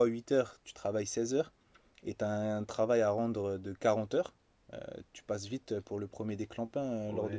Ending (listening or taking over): taking over